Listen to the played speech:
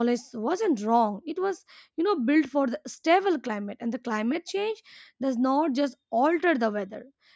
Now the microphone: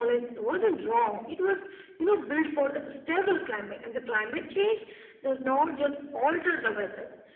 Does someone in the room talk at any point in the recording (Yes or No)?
No